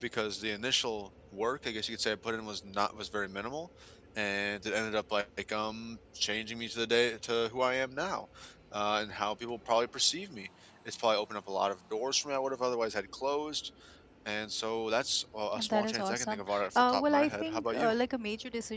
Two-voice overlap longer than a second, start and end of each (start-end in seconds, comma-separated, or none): 15.6-18.0